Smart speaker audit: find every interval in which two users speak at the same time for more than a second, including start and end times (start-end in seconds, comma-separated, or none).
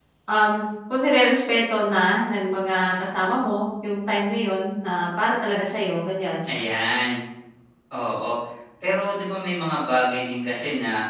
none